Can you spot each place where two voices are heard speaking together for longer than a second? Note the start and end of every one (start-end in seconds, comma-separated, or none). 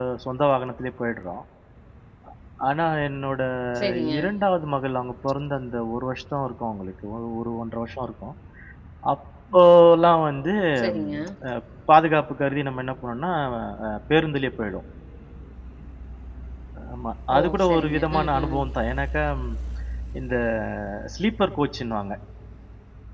17.4-18.6